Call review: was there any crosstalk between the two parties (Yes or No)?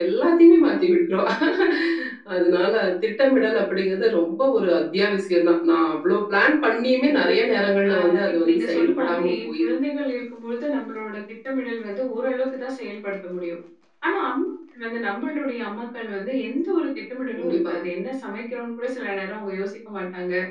Yes